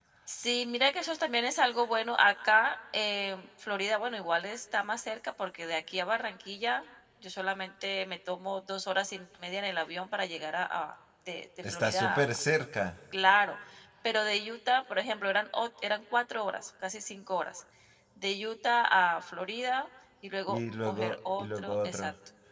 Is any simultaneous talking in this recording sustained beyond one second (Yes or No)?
Yes